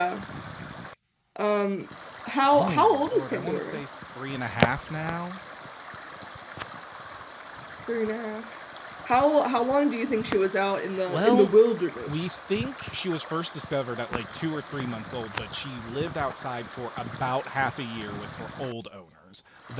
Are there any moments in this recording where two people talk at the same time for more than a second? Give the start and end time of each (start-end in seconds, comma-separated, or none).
2.5-3.8